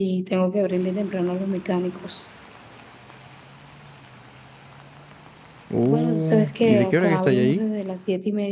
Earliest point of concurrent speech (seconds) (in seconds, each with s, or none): 5.8 s